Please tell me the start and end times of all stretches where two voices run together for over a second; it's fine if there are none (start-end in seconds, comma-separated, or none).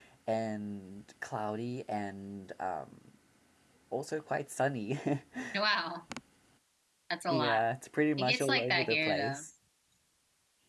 8.2-9.4